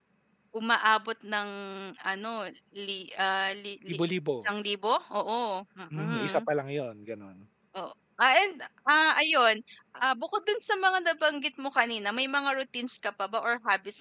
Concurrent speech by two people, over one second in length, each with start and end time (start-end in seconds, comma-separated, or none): none